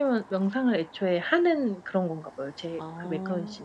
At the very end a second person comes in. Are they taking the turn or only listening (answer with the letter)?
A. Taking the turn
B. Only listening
A